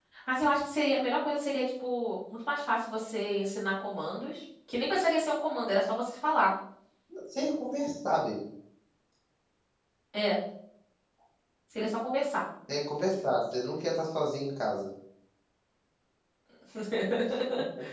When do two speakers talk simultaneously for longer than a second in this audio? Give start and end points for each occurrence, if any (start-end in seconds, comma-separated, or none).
none